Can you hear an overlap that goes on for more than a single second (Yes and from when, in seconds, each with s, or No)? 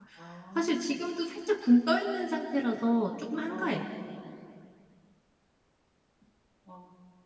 No